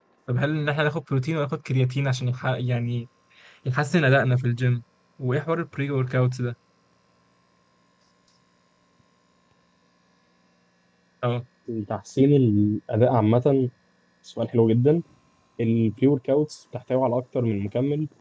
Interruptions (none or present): none